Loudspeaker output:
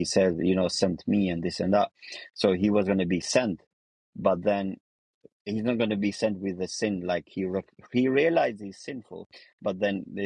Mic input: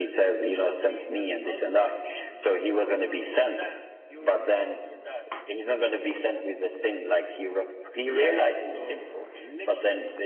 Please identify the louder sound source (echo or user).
echo